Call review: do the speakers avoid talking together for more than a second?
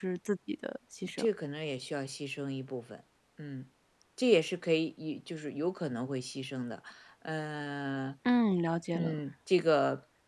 Yes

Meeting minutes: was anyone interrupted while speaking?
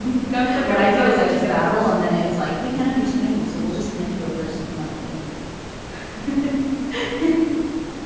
Yes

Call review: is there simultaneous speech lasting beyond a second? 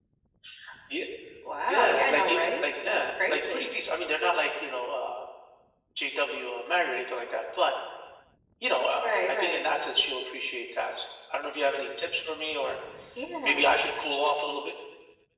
Yes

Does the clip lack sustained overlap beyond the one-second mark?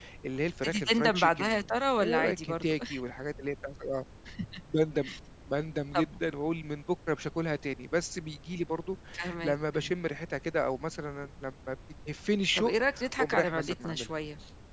No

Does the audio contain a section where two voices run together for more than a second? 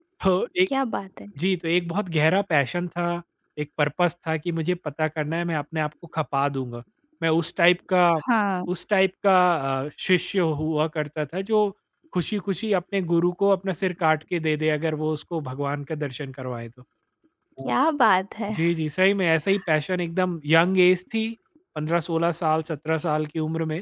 No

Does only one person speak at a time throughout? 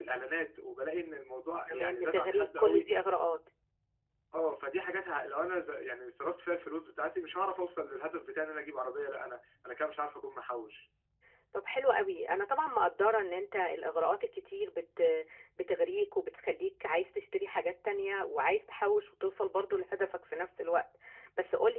No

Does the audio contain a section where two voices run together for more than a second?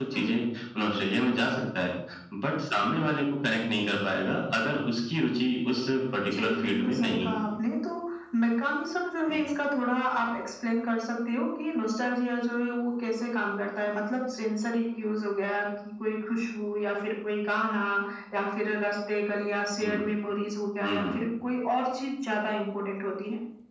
Yes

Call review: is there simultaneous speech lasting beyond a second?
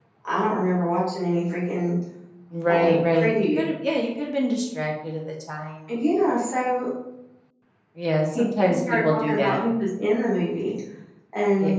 Yes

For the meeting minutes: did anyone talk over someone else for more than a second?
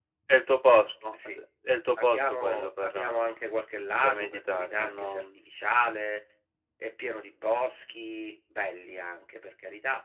Yes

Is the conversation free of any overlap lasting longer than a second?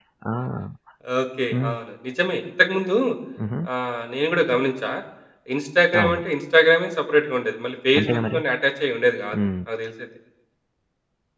Yes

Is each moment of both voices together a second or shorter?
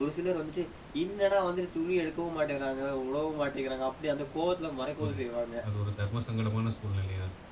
Yes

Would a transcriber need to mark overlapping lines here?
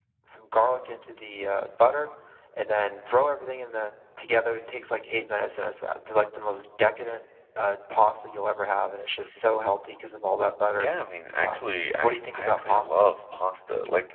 Yes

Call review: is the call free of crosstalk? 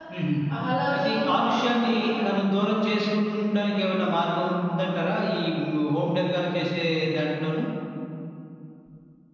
No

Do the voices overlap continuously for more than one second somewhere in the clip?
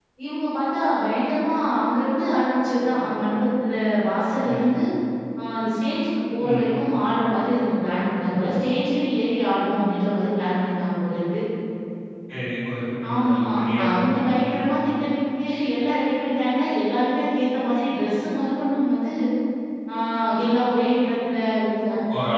Yes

